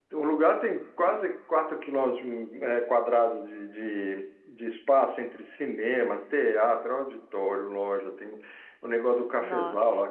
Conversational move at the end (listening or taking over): listening